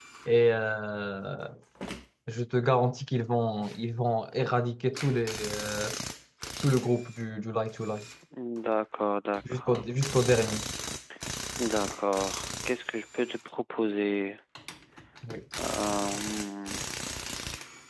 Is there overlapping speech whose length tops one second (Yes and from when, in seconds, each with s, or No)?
No